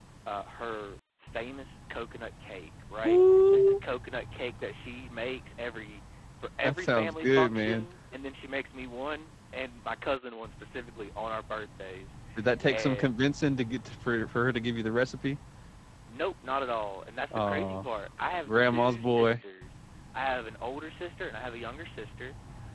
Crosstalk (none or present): present